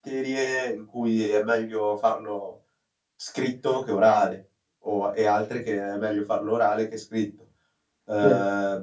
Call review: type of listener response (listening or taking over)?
listening